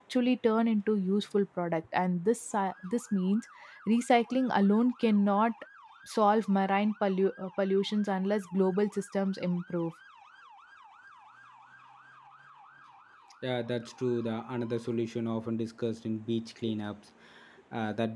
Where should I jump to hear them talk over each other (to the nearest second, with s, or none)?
none